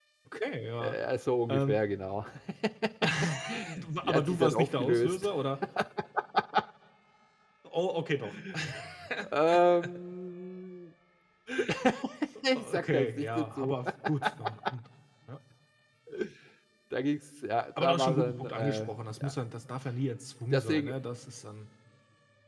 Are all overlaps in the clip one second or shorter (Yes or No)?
No